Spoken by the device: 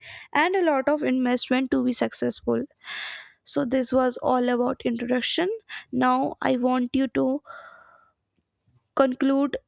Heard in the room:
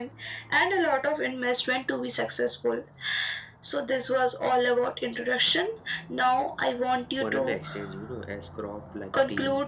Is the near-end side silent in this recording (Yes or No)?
No